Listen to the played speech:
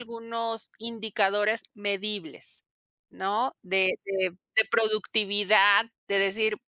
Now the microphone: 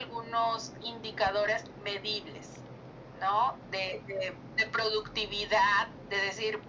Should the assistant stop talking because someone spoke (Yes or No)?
No